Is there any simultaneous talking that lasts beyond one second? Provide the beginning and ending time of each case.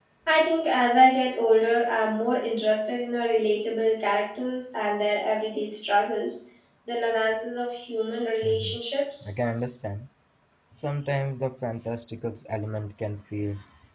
none

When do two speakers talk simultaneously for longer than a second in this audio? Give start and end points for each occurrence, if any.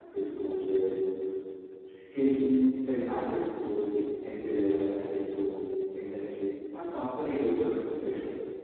none

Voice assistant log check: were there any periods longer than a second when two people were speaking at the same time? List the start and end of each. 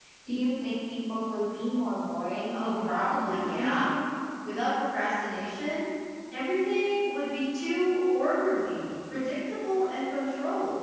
2.5-3.9

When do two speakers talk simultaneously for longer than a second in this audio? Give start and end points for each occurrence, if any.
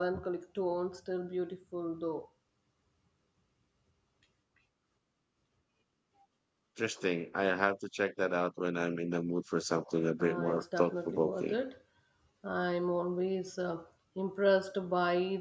10.2-11.6

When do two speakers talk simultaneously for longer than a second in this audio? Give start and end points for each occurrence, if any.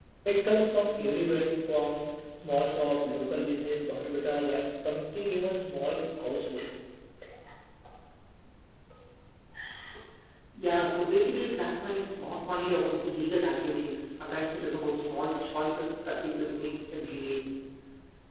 none

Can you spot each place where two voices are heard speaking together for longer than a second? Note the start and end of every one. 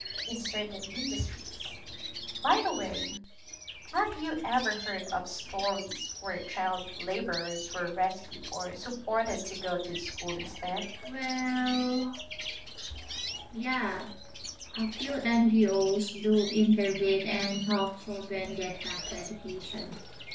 none

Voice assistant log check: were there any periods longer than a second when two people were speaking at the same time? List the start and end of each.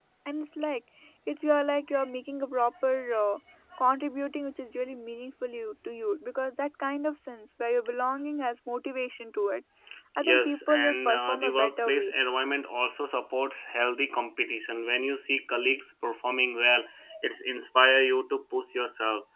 10.2-12.1

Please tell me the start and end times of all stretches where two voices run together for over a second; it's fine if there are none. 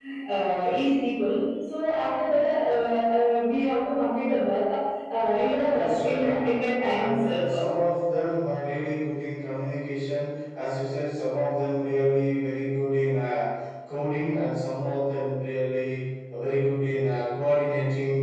5.7-7.6

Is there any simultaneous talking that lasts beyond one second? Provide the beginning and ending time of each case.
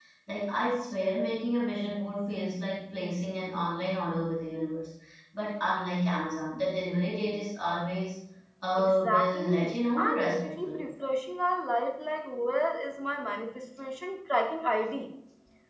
8.8-10.9

